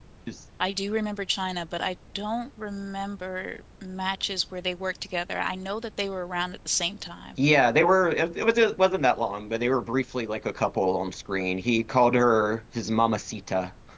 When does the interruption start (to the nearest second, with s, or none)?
none